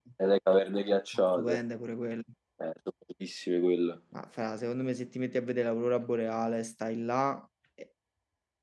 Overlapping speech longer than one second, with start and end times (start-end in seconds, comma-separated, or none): none